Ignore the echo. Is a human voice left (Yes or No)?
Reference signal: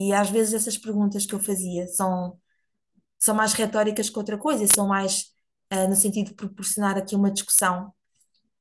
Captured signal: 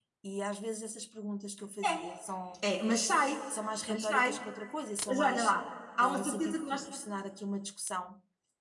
Yes